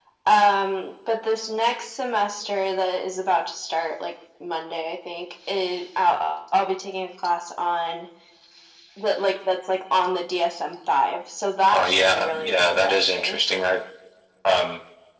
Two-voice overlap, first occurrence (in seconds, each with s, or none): 11.7 s